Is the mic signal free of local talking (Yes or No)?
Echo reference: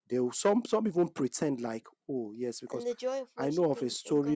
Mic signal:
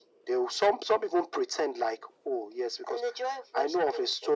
Yes